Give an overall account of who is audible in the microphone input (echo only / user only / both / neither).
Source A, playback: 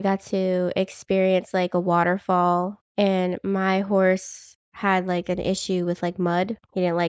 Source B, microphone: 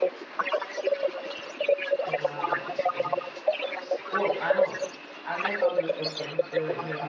both